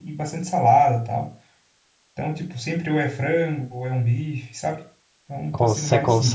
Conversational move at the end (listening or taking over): taking over